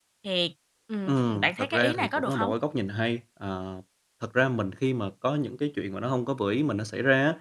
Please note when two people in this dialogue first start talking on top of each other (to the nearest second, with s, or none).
1 s